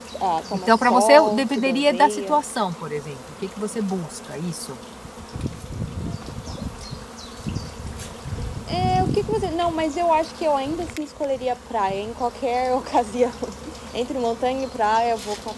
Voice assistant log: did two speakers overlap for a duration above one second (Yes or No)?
Yes